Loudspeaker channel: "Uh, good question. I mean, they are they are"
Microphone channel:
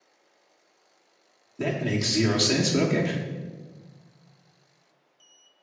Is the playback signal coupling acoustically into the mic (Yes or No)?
No